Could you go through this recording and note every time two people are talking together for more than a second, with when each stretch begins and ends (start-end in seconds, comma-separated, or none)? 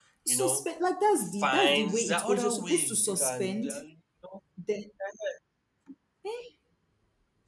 1.2-3.7